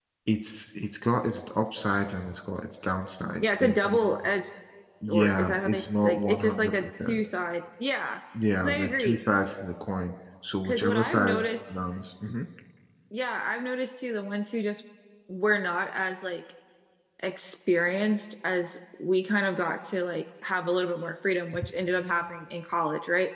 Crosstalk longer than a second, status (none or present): present